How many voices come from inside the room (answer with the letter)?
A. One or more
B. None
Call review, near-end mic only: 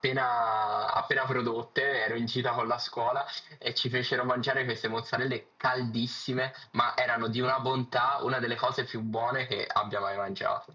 B